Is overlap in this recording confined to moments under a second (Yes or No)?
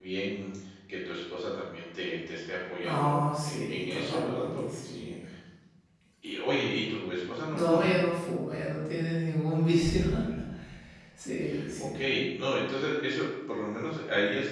No